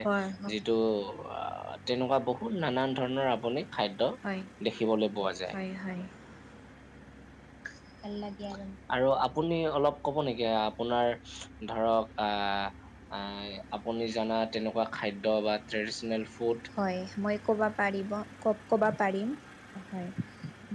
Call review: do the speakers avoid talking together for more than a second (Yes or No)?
Yes